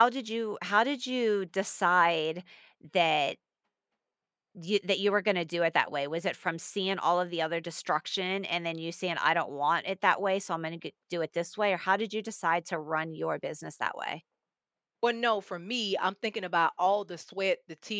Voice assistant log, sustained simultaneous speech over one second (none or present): none